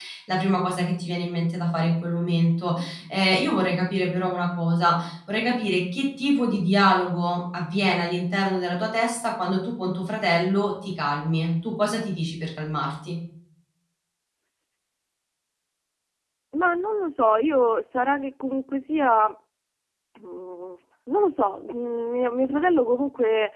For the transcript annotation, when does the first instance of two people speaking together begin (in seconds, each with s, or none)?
none